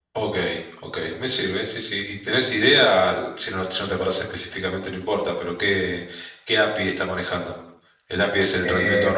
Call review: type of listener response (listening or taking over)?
taking over